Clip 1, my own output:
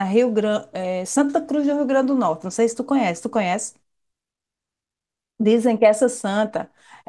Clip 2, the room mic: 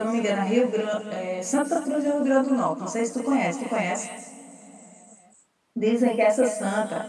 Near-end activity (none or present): none